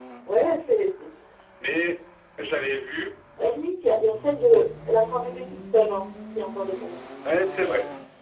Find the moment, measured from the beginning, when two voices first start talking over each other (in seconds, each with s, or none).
none